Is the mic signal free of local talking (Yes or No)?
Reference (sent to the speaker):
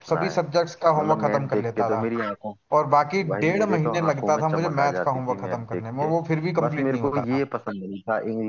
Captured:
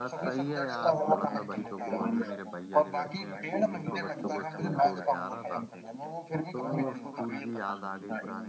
No